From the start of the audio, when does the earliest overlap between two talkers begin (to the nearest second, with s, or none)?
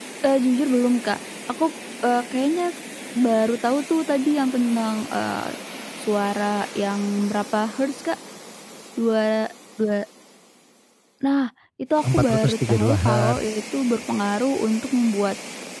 12 s